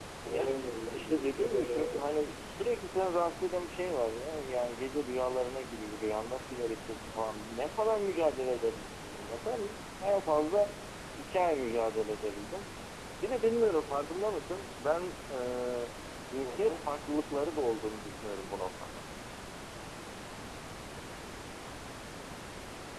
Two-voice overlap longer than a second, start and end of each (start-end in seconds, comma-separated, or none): 0.9-2.2